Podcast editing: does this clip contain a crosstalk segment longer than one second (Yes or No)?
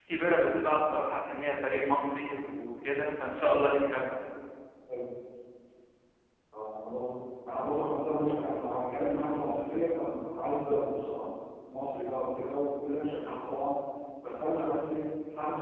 No